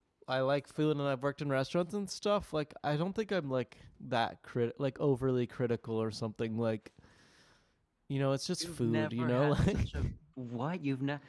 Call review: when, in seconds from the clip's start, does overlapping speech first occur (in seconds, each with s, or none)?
8.6 s